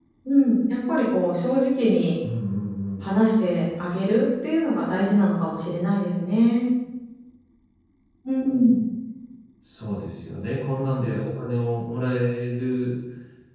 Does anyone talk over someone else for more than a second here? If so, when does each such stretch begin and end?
none

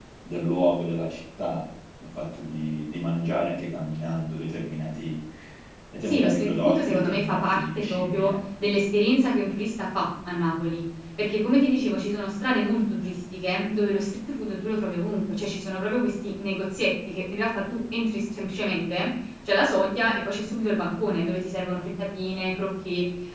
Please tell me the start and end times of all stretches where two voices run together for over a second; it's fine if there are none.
6.0-8.3

